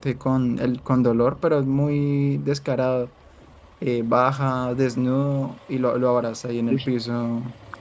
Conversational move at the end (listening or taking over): listening